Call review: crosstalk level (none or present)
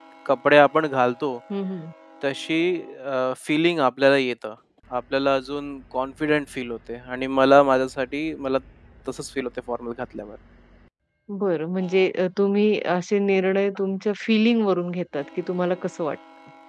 none